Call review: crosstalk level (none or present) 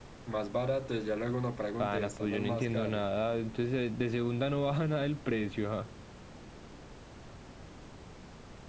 present